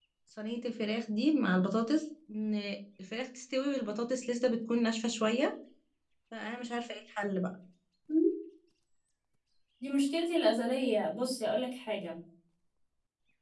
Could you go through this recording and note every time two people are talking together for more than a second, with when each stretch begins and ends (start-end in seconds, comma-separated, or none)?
none